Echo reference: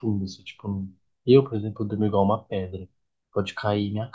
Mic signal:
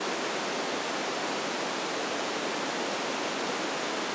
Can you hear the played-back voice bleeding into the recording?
No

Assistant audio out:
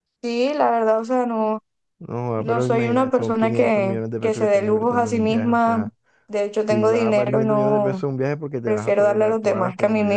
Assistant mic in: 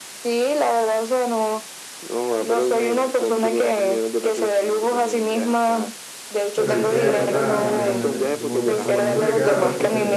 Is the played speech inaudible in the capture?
No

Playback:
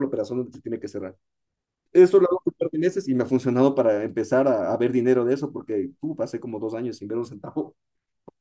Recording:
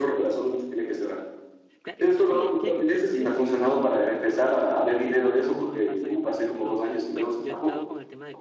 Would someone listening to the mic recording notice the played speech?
Yes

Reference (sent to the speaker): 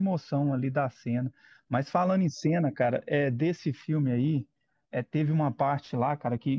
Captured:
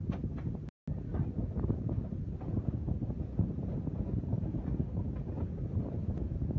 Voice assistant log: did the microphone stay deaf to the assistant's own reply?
Yes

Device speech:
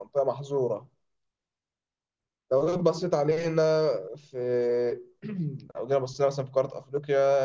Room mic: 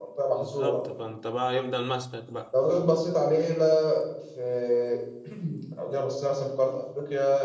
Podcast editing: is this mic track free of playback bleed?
No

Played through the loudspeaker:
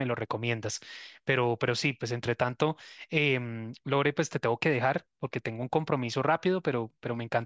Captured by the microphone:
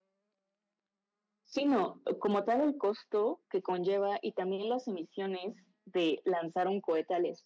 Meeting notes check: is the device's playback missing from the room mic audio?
Yes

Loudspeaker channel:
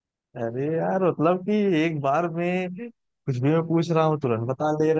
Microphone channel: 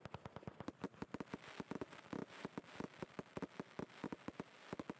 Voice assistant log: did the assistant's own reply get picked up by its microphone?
No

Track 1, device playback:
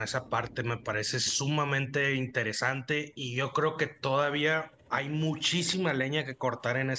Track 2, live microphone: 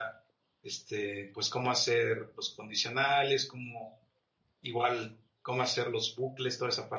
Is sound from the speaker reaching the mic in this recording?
No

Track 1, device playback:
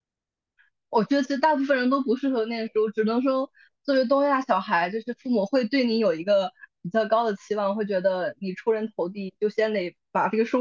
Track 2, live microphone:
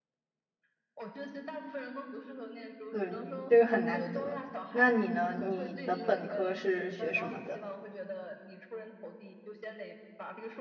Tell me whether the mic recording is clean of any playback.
No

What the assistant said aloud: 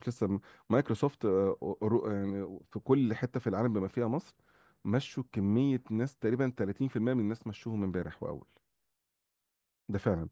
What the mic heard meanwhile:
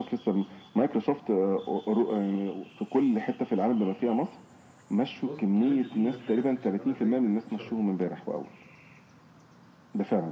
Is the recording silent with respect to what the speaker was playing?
No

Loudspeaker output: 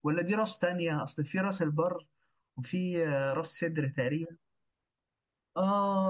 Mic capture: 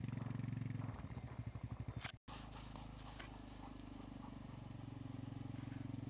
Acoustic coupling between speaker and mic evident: No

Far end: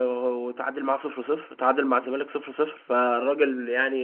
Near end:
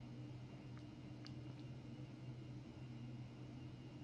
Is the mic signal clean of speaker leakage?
Yes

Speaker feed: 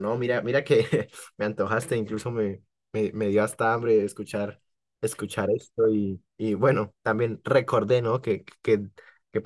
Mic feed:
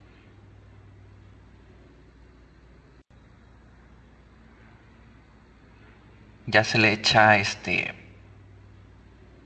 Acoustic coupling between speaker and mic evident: No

